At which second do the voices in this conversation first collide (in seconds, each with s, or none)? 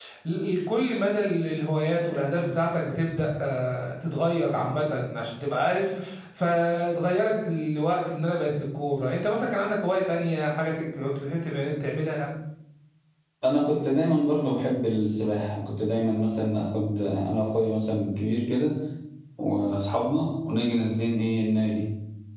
none